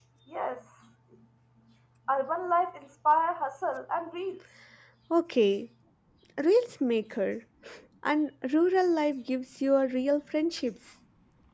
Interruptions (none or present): none